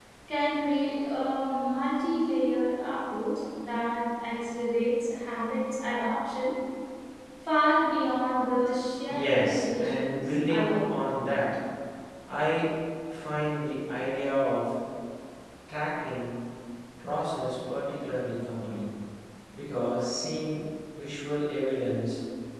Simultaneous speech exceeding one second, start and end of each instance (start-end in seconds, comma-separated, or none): 9.1-11.0